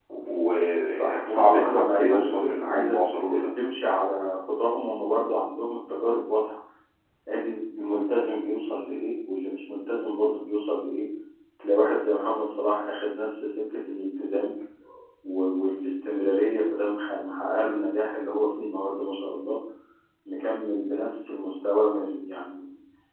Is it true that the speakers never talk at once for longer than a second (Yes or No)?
No